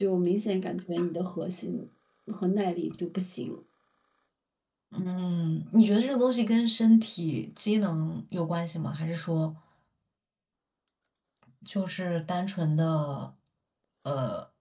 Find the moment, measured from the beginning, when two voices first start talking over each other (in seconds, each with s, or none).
none